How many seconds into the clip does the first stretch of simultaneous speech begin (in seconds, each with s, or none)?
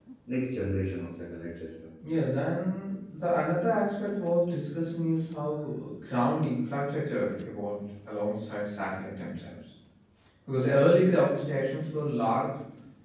none